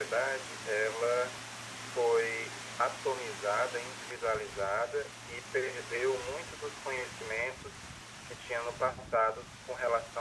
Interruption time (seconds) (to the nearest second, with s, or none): none